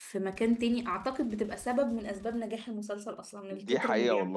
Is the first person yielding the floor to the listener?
Yes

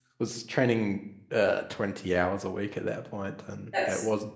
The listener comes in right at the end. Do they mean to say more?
Yes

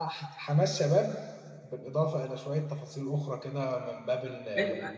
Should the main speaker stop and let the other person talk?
Yes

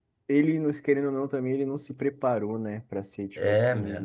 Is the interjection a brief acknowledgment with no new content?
No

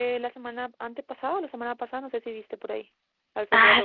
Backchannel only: No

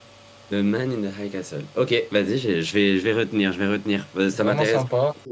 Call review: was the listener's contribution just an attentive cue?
No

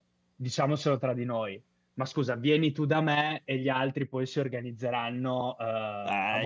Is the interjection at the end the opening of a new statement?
Yes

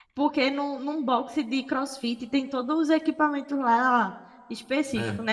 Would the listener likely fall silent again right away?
Yes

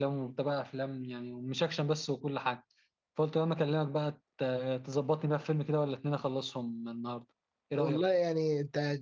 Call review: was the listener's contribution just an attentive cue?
No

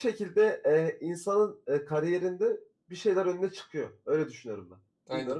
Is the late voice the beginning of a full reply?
Yes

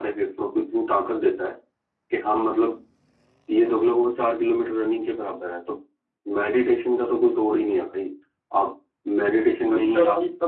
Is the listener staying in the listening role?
No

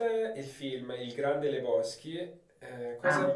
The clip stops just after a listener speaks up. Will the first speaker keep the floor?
Yes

